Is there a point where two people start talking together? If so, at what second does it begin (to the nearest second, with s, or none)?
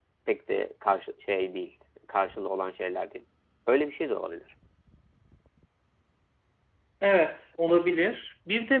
none